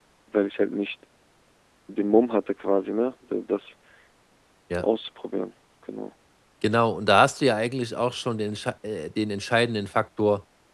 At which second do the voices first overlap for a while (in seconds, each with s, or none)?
none